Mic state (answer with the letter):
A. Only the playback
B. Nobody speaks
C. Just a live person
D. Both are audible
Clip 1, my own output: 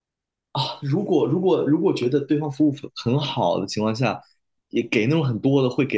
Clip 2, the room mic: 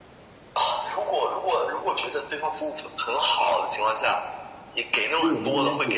D